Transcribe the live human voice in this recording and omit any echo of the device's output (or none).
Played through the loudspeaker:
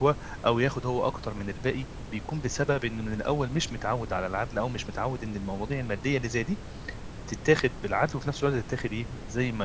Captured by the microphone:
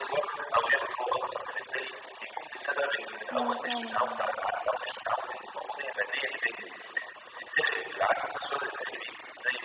أيوه فعلًا.